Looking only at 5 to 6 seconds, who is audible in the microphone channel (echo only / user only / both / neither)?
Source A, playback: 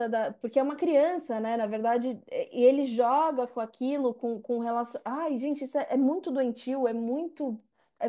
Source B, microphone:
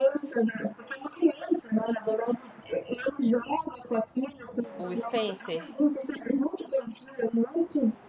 both